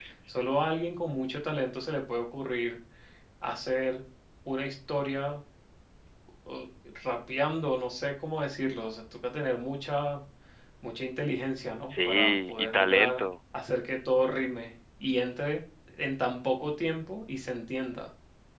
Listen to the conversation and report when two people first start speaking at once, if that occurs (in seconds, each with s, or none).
11.9 s